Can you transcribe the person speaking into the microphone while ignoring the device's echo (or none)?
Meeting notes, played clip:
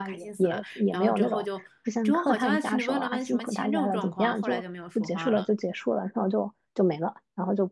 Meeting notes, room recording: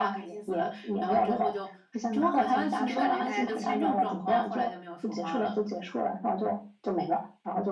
就感觉大家都是那种